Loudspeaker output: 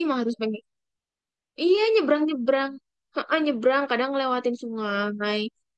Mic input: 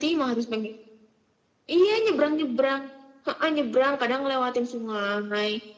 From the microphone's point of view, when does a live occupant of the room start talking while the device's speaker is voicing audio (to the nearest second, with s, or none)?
none